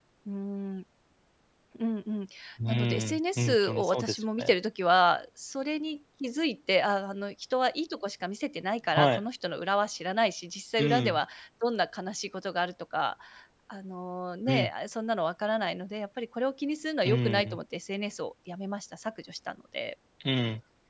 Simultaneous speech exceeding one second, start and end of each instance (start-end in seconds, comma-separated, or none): 2.7-4.5